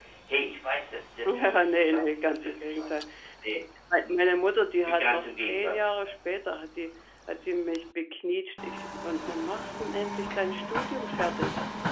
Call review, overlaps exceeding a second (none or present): present